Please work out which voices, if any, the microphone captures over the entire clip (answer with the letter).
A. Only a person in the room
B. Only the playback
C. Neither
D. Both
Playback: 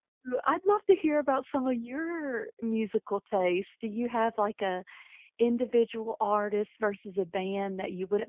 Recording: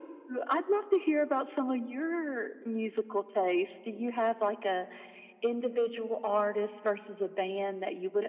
B